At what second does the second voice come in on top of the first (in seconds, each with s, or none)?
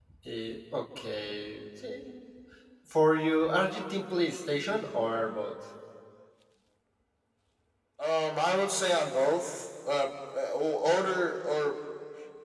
none